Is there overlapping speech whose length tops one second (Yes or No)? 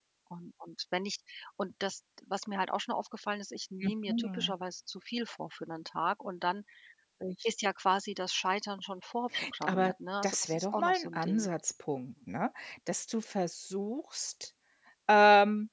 Yes